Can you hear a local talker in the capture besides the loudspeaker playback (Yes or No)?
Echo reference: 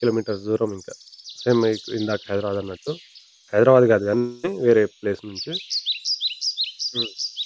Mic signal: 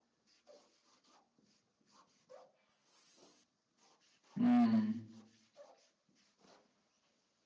Yes